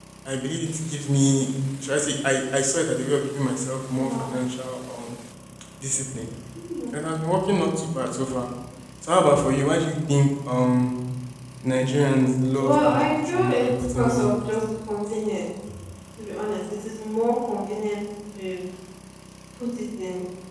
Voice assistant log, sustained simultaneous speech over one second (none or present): present